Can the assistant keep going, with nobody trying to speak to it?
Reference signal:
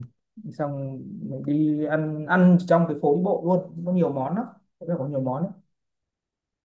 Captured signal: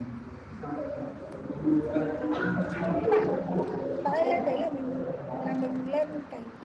No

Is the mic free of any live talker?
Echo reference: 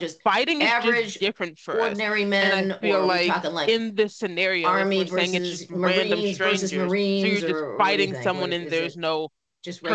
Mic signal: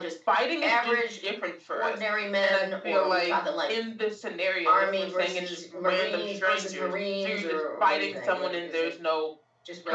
Yes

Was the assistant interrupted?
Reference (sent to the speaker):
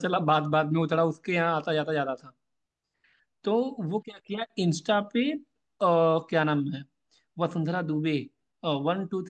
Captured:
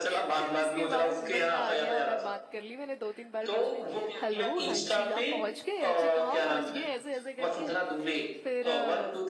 Yes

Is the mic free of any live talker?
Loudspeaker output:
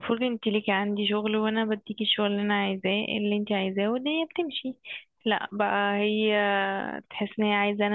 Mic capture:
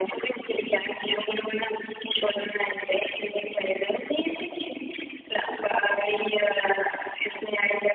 Yes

